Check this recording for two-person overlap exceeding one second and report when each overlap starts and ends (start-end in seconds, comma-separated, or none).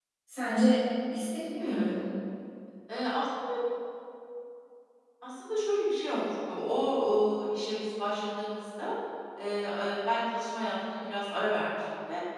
none